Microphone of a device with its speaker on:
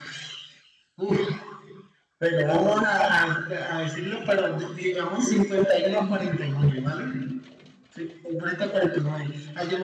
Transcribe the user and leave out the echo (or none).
none